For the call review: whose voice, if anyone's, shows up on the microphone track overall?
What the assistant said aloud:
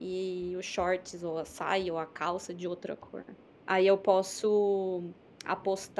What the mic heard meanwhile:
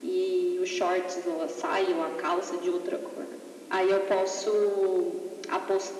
echo only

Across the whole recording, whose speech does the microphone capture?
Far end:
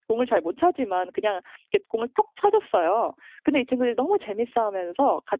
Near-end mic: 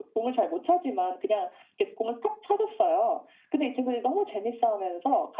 echo only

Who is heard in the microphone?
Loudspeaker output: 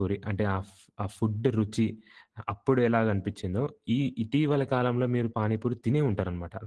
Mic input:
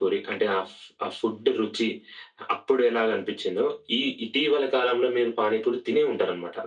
echo only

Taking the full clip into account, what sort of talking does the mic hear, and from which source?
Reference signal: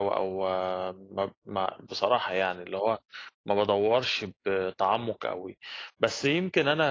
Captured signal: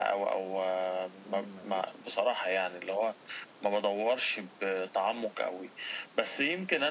both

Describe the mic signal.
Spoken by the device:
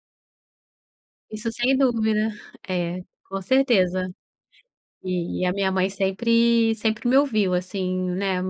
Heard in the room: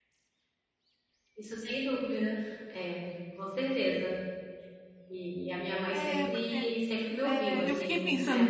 both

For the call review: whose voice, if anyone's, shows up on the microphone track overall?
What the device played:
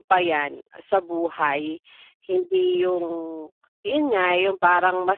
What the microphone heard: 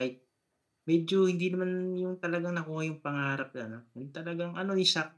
user only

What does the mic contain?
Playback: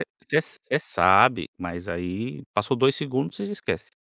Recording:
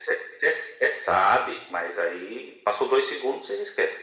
echo only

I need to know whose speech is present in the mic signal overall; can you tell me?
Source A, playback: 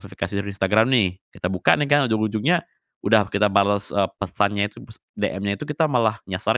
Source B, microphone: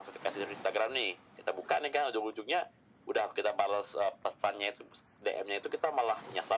echo only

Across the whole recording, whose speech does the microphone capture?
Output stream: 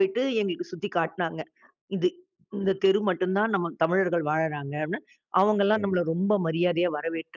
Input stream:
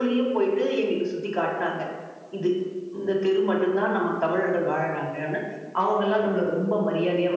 echo only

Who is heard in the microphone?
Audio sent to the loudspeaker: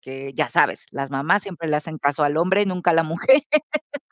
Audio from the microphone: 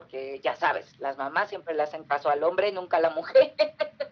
echo only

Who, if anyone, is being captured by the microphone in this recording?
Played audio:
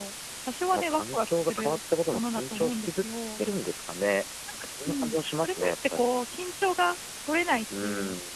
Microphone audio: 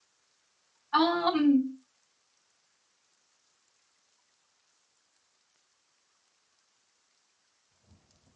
user only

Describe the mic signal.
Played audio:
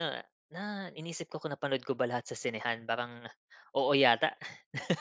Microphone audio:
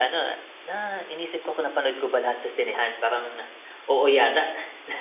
echo only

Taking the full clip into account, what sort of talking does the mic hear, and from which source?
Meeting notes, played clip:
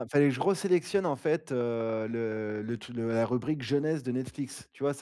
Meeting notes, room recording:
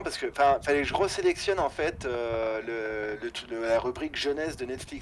echo only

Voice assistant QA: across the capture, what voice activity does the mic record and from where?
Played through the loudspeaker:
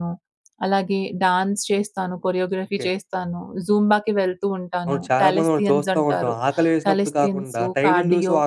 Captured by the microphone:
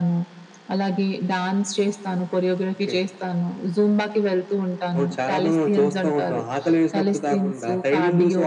echo only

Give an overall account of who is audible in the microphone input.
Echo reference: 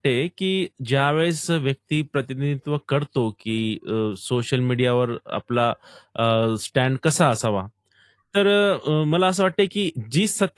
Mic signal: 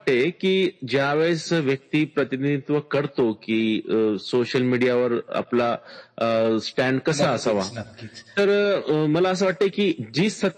both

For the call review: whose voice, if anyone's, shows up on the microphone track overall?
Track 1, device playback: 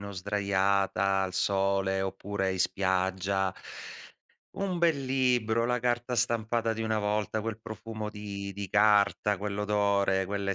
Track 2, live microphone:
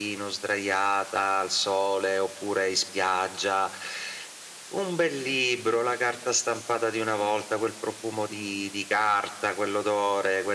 echo only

